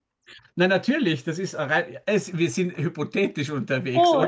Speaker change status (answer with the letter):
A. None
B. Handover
B